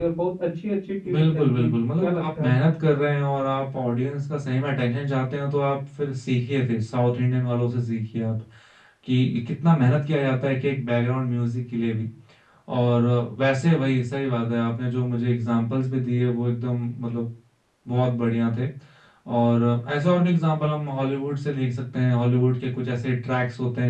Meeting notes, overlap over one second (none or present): present